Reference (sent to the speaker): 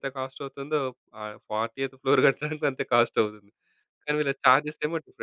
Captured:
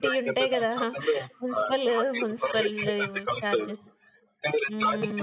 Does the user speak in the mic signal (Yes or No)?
Yes